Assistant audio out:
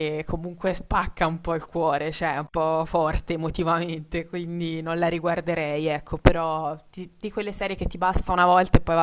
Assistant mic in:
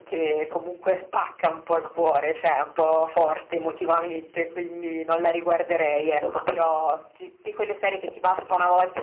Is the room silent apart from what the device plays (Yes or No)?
No